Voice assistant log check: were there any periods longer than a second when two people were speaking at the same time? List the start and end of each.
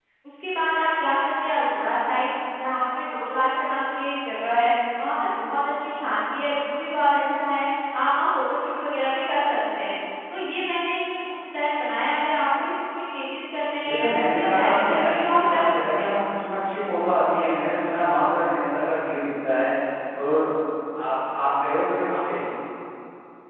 13.9-16.1

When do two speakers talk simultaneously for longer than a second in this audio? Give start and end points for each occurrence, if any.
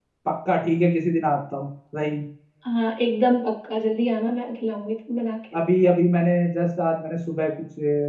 none

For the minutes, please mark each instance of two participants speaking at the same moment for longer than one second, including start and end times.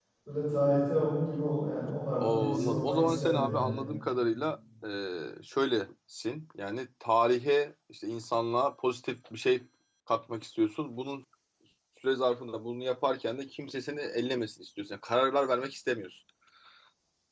2.2-3.8

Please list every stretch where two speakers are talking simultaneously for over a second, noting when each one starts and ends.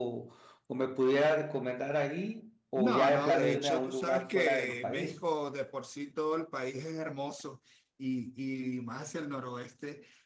2.8-5.2

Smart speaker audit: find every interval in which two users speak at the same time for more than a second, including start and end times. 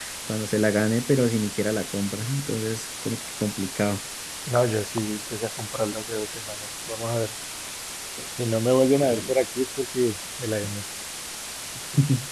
none

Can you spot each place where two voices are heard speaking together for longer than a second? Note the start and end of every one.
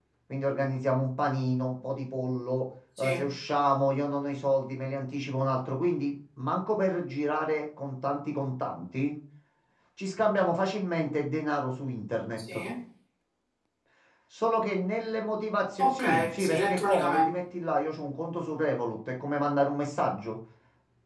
15.8-17.3

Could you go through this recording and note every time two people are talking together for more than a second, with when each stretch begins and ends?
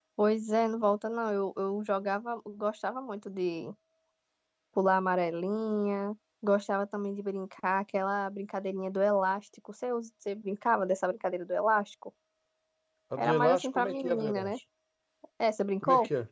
13.2-14.5

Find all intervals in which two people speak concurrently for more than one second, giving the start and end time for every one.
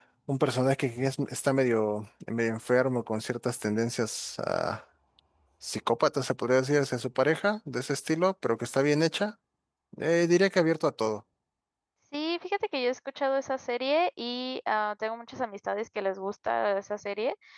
none

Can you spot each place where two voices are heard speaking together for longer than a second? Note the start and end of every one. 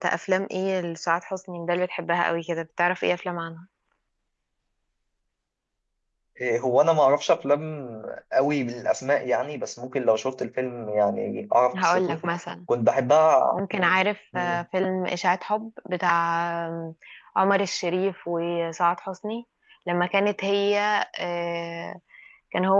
none

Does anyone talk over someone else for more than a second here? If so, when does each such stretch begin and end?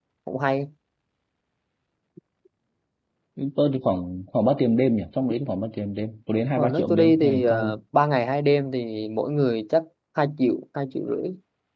6.6-7.8

